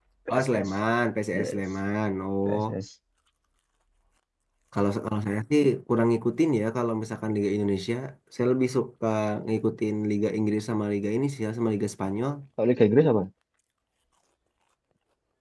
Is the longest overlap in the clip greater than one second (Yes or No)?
No